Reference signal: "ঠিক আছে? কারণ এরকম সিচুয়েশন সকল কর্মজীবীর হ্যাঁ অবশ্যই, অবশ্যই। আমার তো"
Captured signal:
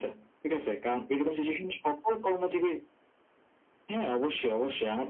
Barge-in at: none

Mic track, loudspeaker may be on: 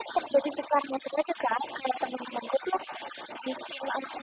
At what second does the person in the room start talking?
none

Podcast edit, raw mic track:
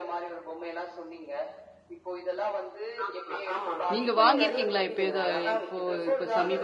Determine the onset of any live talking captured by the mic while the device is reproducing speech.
4 s

